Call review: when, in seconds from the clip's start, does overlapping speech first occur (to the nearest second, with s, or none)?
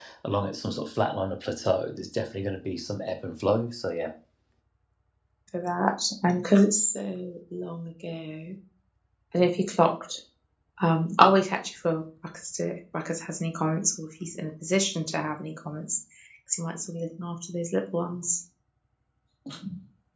none